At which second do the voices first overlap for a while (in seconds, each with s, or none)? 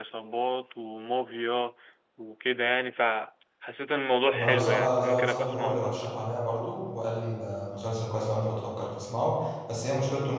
4.3 s